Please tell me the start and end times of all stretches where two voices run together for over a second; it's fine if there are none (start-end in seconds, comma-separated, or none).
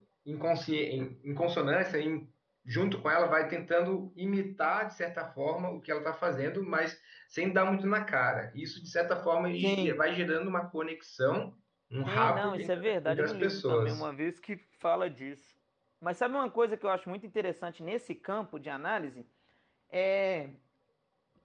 12.1-14.0